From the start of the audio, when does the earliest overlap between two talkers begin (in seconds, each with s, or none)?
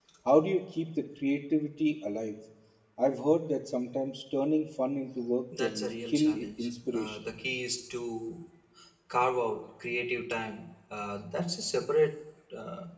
5.5 s